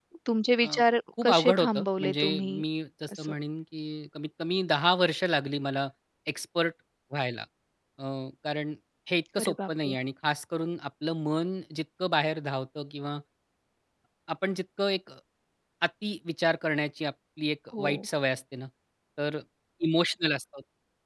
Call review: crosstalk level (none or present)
present